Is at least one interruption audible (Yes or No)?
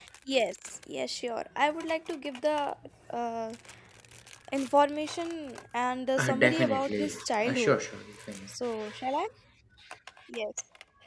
Yes